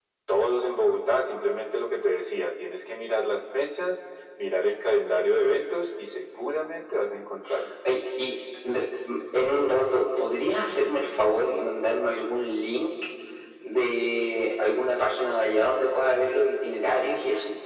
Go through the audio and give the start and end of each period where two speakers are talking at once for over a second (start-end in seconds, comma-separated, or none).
none